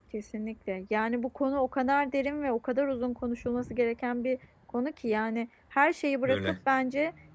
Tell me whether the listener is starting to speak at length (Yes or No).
No